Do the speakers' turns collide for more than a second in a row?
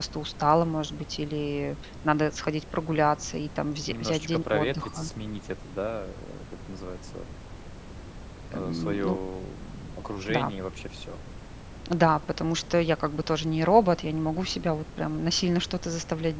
Yes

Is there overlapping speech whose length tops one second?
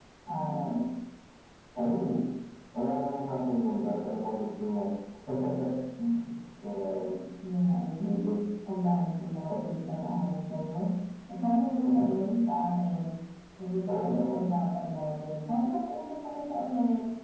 No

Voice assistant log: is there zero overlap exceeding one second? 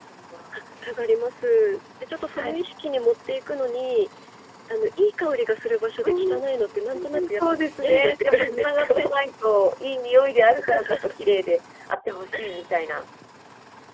No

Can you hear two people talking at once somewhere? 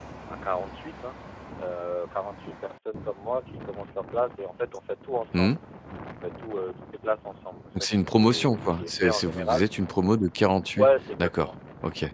Yes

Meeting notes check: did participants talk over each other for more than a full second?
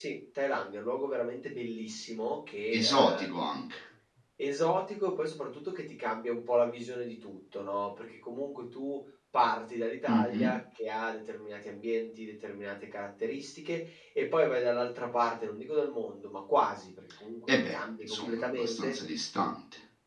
Yes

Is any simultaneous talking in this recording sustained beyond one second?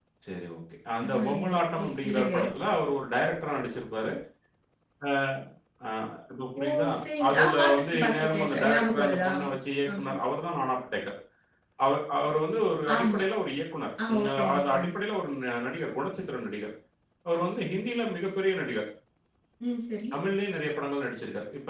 Yes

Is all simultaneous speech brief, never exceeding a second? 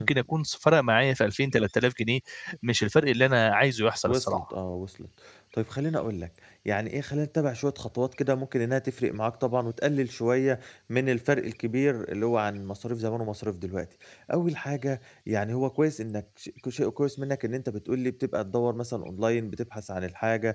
Yes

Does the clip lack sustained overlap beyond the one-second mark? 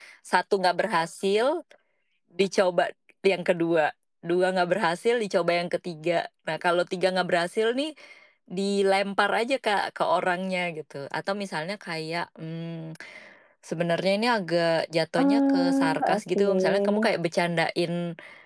No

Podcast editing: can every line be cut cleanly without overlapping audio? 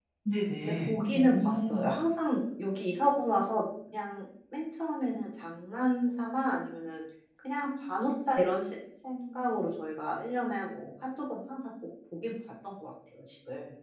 No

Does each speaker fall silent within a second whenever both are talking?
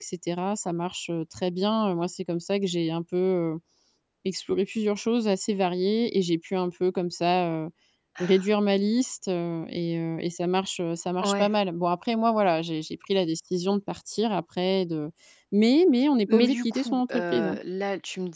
No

